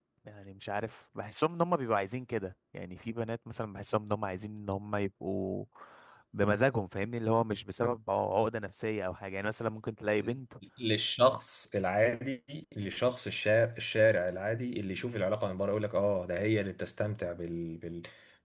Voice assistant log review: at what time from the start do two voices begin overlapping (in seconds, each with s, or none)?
none